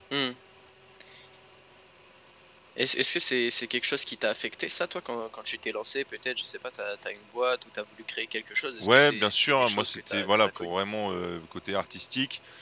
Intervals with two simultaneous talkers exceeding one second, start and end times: 8.8-10.7

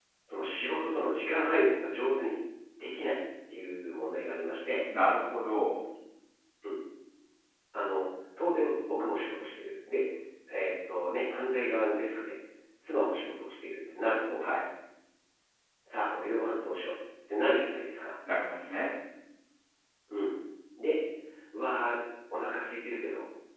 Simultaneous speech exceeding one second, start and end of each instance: none

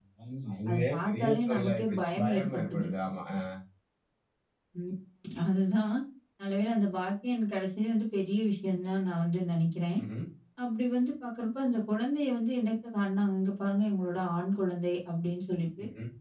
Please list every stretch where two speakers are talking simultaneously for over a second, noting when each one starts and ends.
0.7-2.9

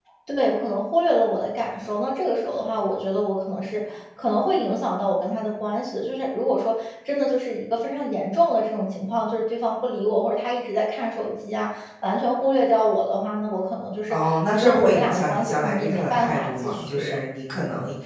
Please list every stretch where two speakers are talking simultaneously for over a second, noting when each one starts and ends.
14.1-17.2

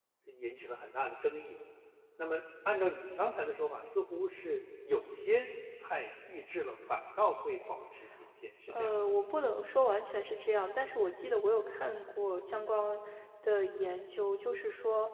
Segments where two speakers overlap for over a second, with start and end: none

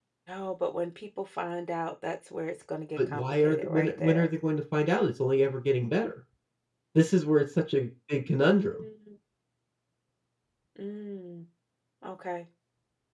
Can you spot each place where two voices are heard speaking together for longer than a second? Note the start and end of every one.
3.0-4.3

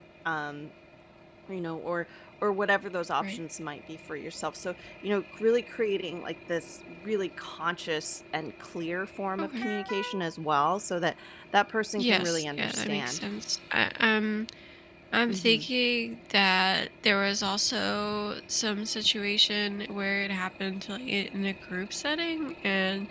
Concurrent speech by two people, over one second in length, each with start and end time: 12.0-13.2

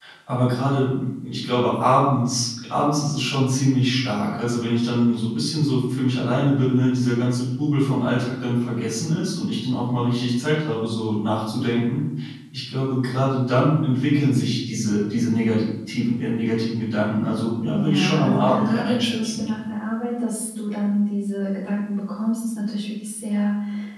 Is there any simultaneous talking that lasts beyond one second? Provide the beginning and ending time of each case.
17.7-19.4

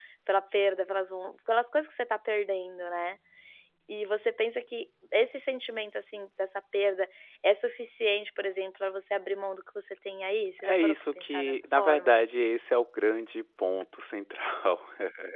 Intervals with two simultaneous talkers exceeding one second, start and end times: 10.6-12.2

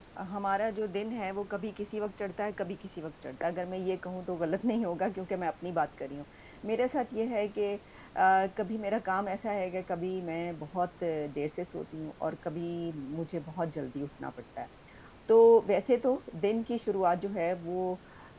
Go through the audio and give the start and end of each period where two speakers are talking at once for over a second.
none

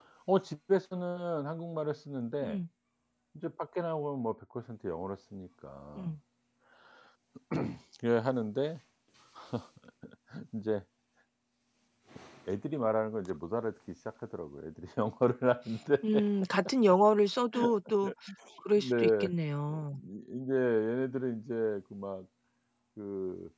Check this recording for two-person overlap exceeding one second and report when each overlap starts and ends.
none

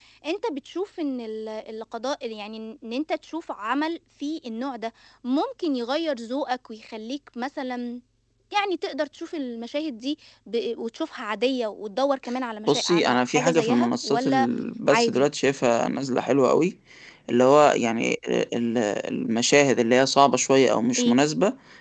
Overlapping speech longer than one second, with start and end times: 12.7-14.5

